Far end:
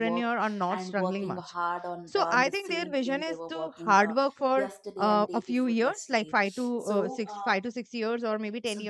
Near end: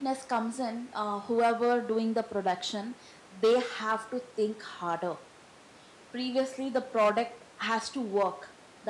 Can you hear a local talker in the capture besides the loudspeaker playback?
Yes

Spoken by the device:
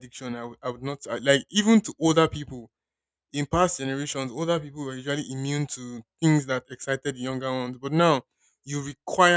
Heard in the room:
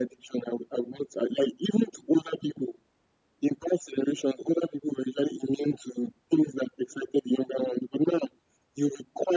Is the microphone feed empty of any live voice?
Yes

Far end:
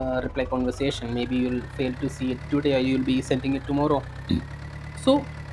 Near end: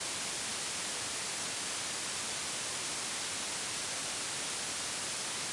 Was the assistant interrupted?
No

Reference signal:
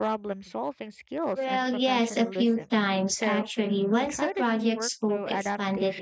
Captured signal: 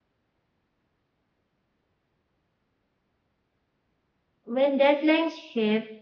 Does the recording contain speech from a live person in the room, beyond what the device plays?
Yes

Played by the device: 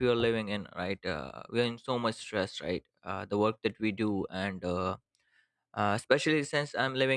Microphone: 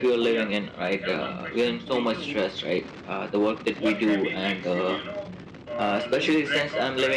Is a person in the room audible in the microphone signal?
Yes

